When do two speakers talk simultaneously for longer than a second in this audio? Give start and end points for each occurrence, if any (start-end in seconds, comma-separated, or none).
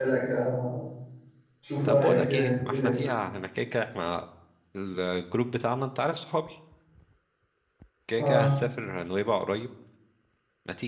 1.8-3.1